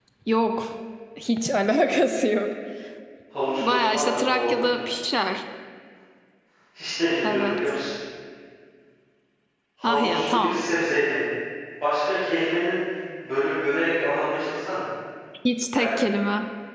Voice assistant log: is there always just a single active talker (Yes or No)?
No